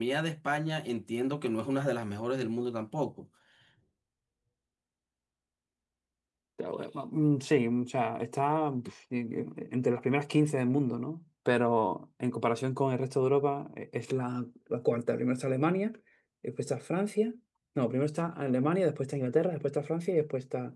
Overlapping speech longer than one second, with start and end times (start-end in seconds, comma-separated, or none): none